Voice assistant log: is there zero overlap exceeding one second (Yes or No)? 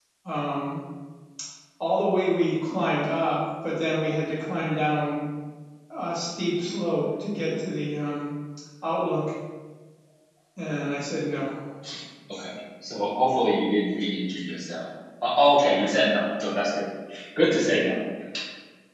Yes